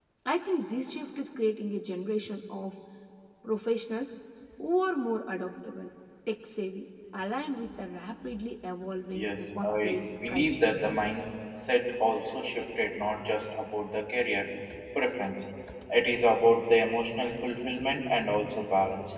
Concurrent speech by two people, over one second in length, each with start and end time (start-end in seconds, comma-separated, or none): 9.1-10.7